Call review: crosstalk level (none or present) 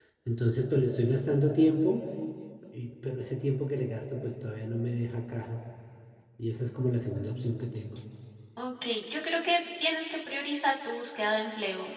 none